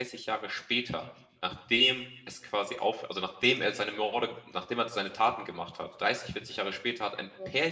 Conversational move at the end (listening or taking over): listening